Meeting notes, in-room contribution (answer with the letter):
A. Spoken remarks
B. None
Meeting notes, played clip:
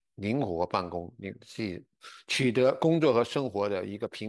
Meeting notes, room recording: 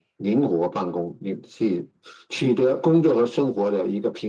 B